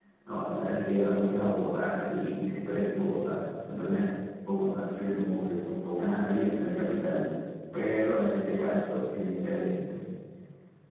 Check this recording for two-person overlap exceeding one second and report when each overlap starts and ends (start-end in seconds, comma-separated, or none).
6.0-7.2